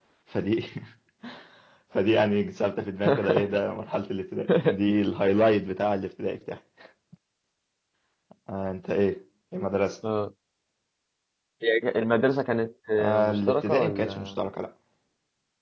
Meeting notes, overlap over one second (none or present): present